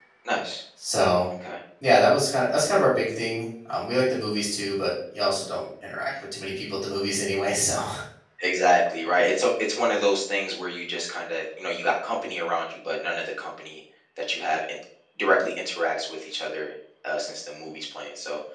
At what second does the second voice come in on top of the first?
none

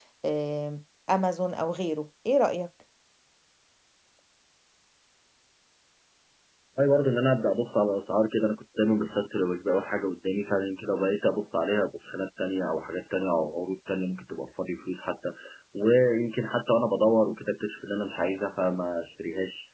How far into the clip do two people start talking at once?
none

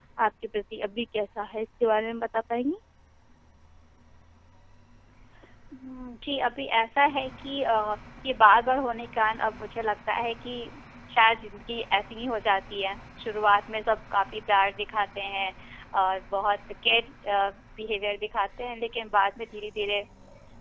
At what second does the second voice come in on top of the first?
none

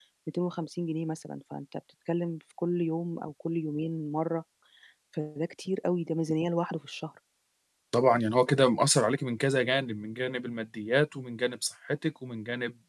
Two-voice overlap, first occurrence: none

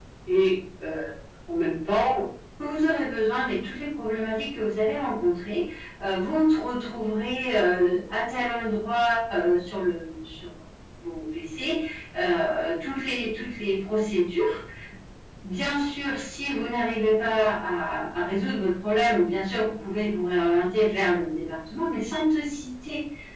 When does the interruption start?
none

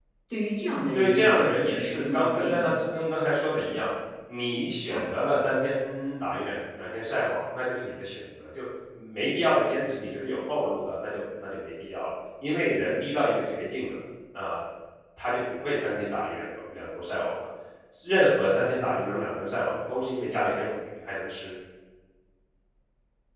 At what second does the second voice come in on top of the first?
0.9 s

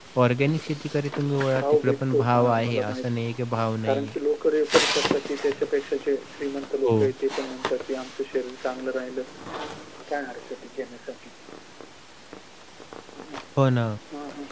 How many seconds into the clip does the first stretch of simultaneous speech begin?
1.6 s

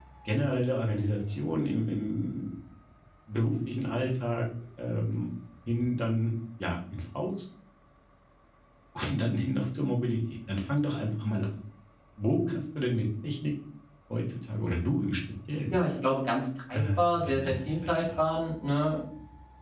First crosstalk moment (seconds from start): 16.7 s

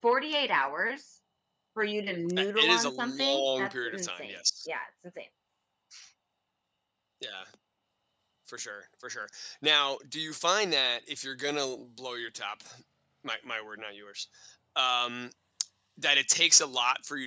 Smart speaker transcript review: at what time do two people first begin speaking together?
2.4 s

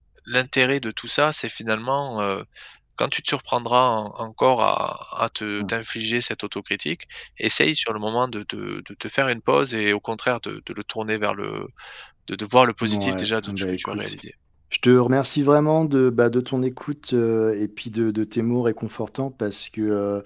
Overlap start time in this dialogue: 12.8 s

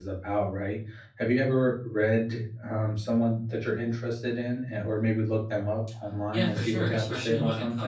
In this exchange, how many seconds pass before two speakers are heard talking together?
6.3 s

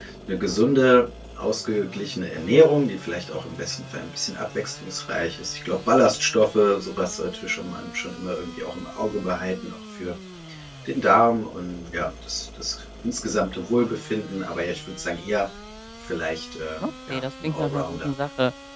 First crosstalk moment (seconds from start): 16.8 s

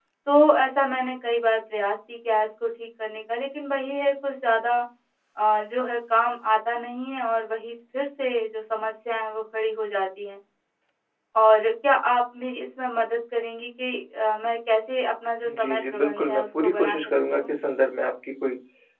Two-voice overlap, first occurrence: 15.4 s

